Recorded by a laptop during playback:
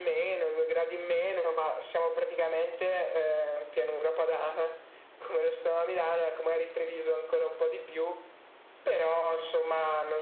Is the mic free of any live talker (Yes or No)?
Yes